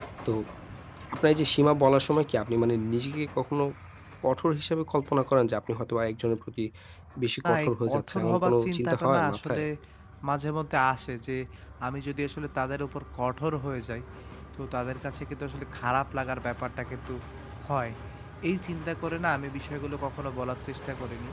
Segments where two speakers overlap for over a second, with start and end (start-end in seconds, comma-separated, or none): 7.5-9.6